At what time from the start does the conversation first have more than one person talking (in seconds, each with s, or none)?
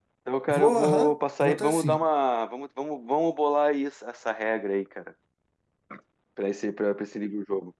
0.5 s